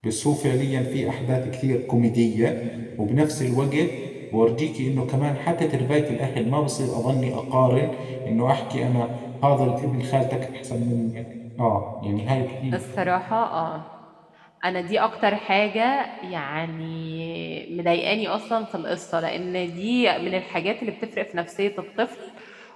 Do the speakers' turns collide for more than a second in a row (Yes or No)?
No